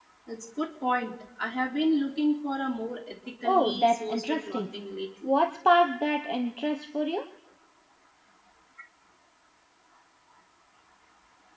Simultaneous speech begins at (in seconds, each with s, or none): 3.4 s